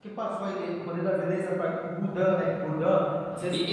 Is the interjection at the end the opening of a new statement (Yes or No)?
Yes